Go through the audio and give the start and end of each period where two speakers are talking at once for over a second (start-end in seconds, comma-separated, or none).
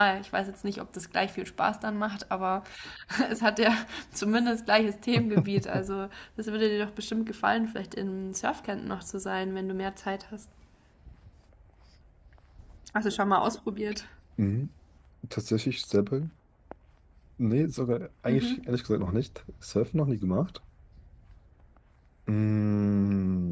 none